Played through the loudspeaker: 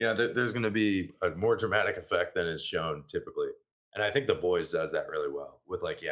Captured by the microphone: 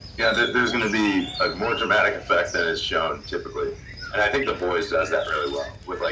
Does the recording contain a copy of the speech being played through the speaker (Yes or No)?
Yes